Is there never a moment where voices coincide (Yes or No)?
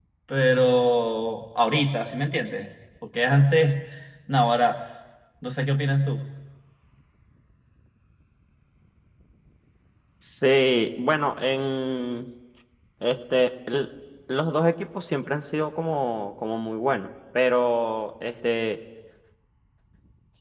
Yes